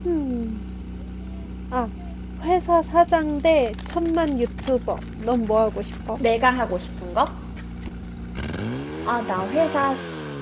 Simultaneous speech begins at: none

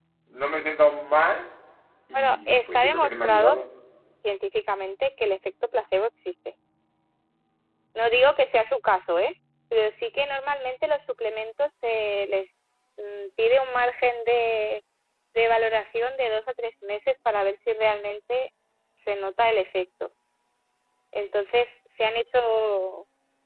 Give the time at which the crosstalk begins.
2.1 s

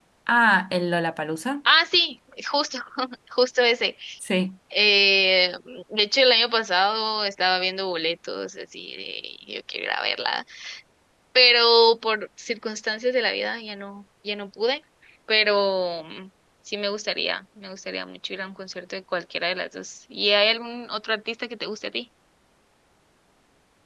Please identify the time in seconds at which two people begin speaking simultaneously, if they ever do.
none

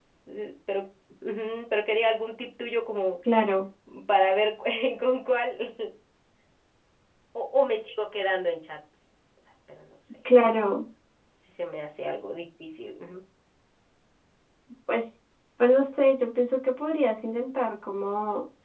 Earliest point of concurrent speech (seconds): none

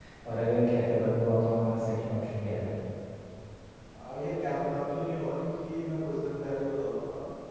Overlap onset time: none

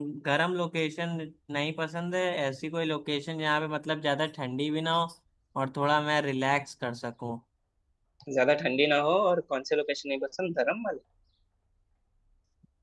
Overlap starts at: none

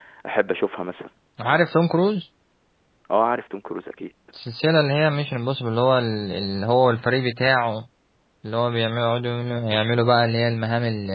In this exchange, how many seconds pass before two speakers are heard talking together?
none

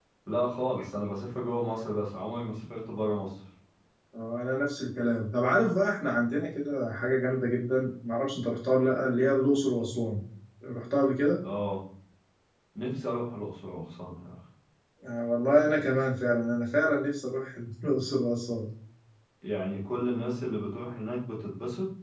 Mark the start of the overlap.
none

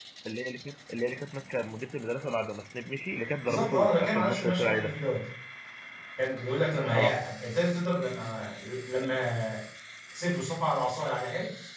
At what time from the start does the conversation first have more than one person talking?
3.4 s

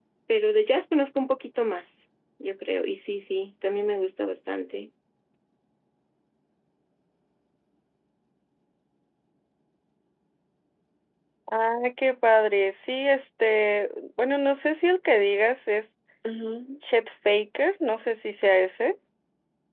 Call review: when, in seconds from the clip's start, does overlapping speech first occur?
none

